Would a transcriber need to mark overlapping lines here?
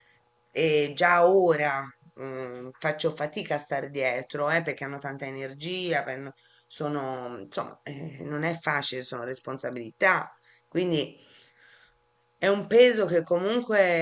No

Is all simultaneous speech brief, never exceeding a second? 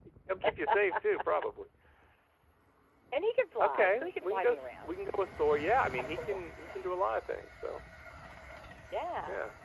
No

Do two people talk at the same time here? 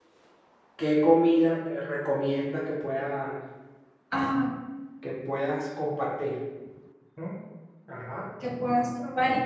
No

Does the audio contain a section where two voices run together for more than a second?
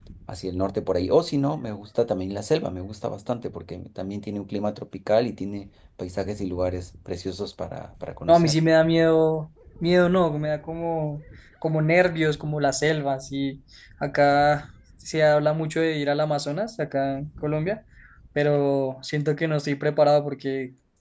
No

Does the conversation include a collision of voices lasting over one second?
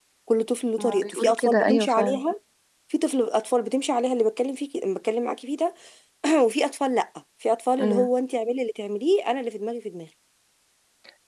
Yes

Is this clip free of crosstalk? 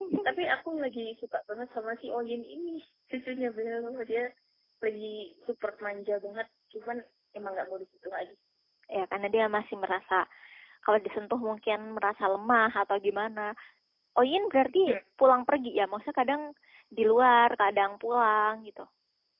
Yes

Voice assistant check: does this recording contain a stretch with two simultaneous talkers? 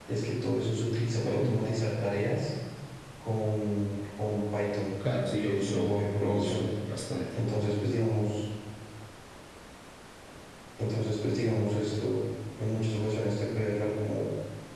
Yes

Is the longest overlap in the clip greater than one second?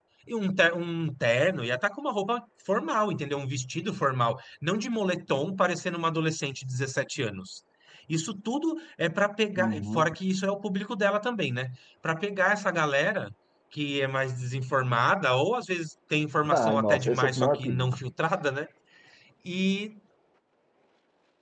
Yes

